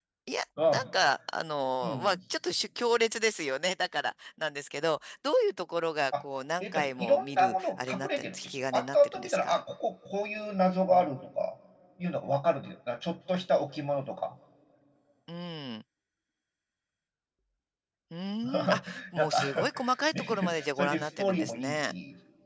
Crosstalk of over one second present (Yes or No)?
Yes